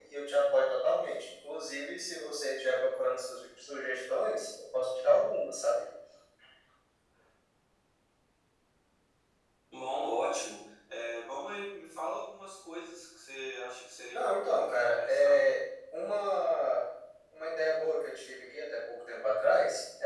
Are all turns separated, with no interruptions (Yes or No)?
No